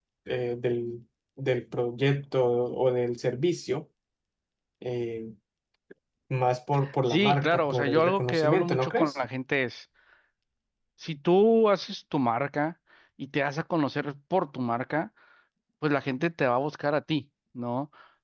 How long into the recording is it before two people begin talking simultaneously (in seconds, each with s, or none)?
7.1 s